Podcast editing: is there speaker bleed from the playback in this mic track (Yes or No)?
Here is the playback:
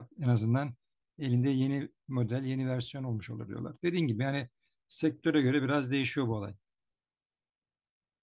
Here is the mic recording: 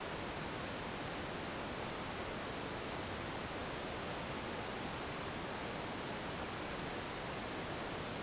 No